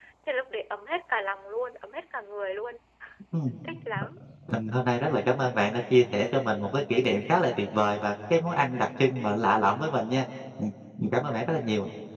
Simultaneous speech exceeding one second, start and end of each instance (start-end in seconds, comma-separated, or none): none